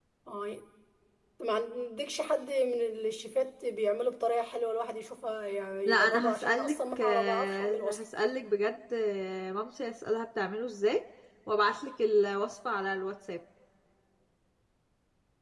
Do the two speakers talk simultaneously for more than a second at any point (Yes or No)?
Yes